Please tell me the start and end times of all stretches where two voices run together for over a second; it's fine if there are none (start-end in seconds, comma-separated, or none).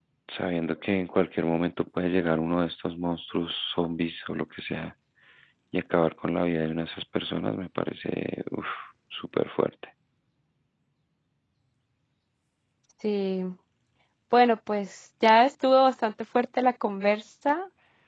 none